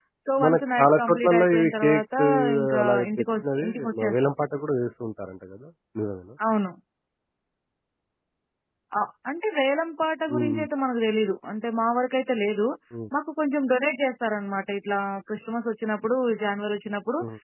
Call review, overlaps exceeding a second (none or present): present